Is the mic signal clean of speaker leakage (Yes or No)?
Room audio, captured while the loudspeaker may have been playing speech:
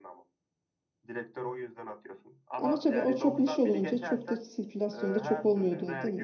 No